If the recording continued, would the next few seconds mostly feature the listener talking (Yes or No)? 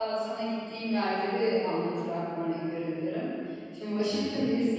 No